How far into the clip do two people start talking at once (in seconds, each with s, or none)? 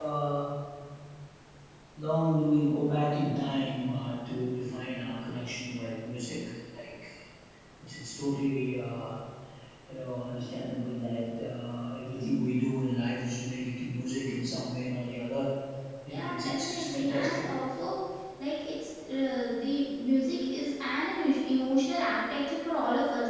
16.1 s